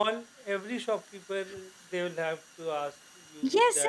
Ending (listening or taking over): taking over